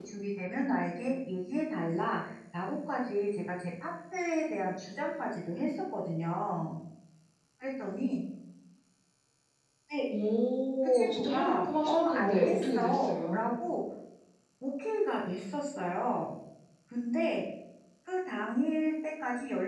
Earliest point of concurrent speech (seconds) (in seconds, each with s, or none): 10.8 s